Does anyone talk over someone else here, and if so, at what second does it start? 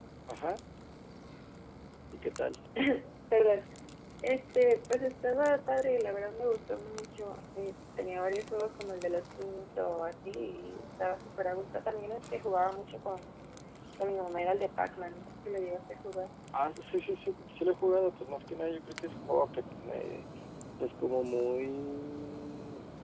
none

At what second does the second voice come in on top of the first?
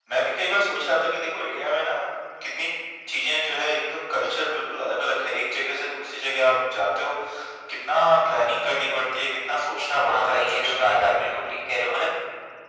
10.1 s

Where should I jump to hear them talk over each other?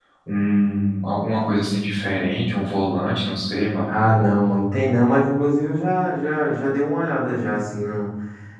none

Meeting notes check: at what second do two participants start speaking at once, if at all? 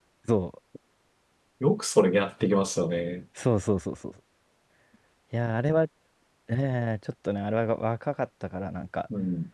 none

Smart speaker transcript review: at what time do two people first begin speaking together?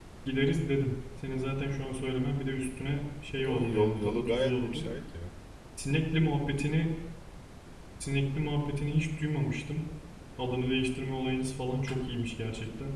3.4 s

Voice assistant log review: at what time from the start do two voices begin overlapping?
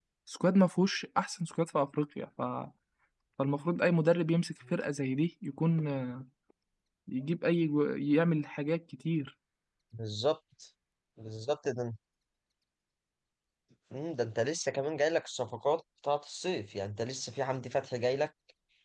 none

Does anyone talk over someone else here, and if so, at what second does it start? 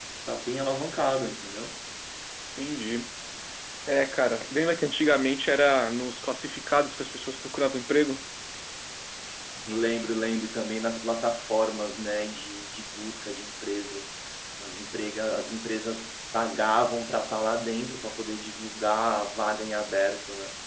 none

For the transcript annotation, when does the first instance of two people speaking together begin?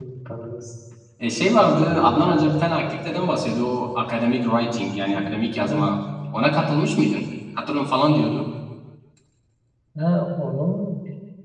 2.1 s

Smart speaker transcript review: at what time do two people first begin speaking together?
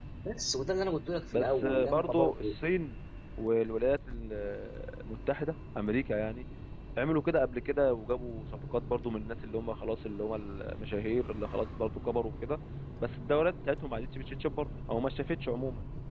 1.3 s

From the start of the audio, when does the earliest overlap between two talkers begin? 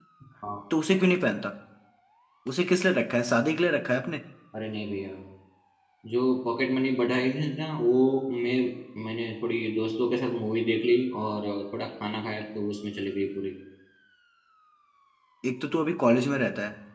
none

